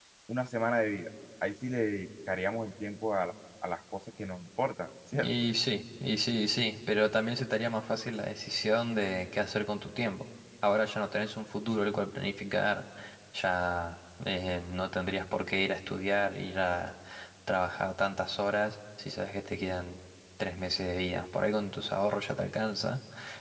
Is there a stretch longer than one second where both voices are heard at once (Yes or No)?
No